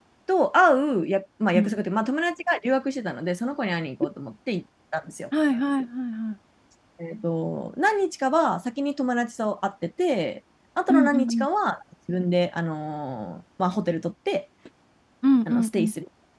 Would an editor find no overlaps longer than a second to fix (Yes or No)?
Yes